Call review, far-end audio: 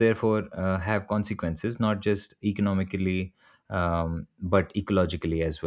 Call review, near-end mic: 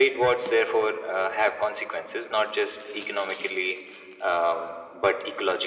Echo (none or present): present